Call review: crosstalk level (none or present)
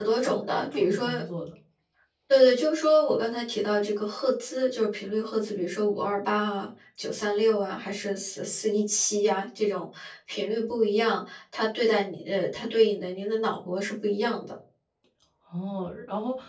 present